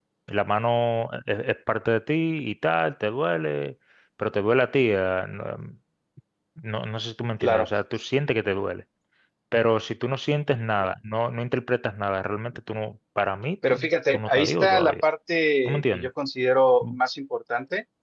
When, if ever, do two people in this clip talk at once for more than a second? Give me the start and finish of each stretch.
13.7-14.9

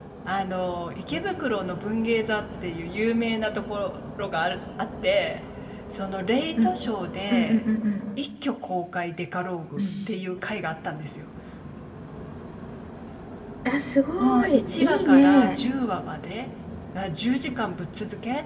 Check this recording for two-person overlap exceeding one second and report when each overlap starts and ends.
14.2-15.6

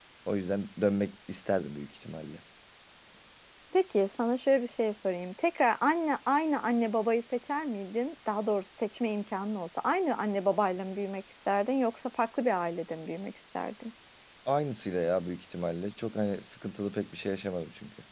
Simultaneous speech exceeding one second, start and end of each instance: none

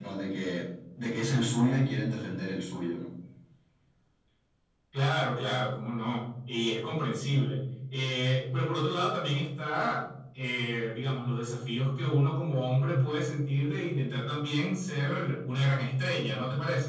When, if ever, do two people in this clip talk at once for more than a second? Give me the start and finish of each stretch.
none

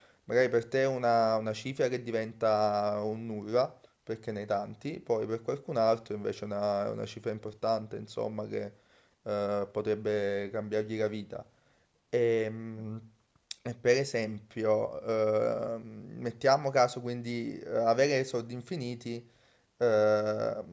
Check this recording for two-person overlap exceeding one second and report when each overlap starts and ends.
none

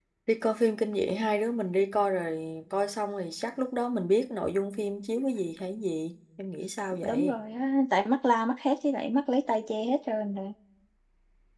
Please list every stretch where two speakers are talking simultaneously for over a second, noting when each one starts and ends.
none

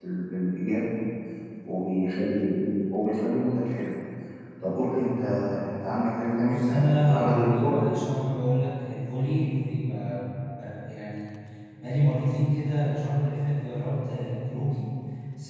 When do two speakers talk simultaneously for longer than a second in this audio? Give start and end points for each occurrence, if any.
6.4-7.8

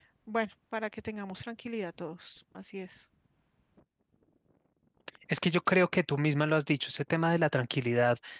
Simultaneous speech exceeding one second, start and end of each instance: none

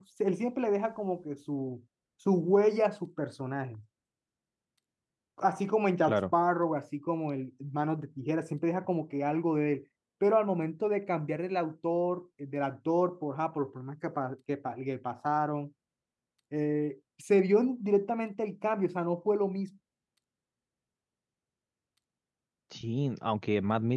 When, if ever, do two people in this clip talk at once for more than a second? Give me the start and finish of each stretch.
none

